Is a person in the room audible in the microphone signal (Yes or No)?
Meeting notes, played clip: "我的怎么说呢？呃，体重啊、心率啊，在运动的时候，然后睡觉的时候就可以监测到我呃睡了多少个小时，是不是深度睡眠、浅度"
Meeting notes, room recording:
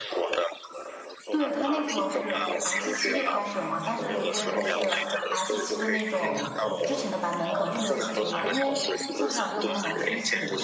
Yes